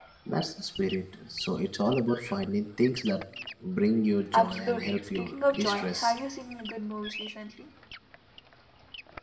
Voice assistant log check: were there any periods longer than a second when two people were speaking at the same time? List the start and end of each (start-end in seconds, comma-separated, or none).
4.3-6.1